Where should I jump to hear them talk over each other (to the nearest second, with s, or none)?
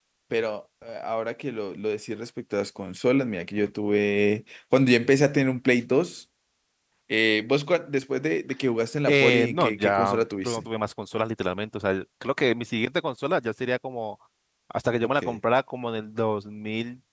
9 s